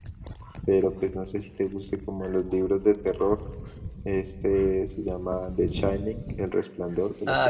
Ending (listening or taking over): taking over